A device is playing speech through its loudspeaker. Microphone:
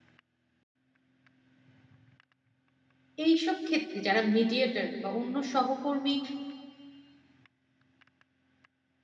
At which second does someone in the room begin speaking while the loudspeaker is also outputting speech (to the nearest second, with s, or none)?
3 s